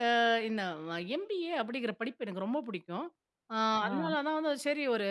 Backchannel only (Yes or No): Yes